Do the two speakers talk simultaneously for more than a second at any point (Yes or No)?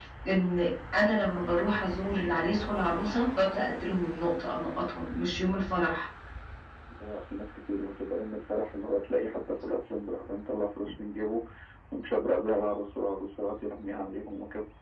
No